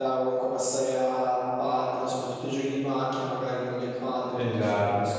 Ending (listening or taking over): listening